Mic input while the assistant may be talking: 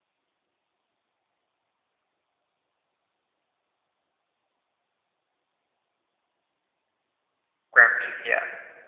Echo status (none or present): none